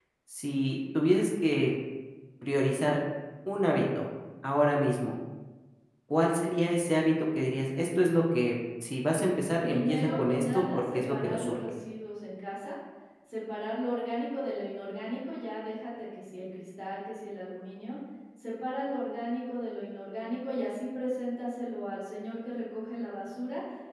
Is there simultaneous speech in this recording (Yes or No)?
Yes